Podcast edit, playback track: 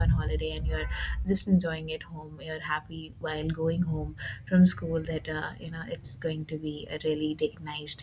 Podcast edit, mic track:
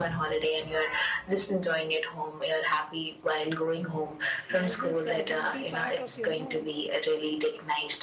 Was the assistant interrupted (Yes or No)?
Yes